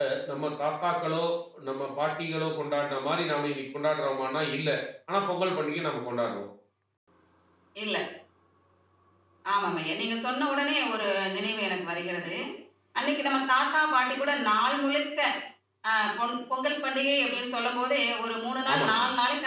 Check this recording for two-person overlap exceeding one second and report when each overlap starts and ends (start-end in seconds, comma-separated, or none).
none